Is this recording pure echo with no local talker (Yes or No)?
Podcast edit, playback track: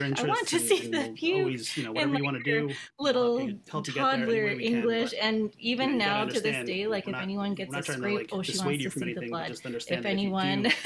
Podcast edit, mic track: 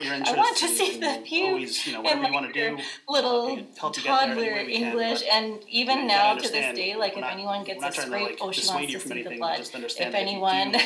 Yes